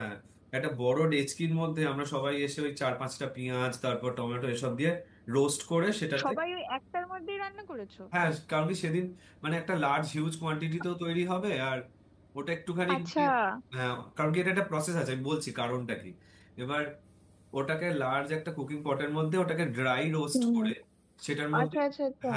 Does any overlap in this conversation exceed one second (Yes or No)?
No